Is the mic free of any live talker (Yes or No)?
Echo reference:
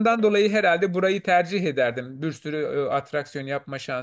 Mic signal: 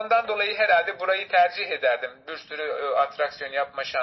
Yes